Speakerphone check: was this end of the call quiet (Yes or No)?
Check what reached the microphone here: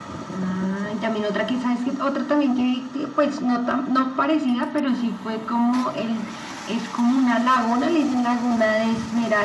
Yes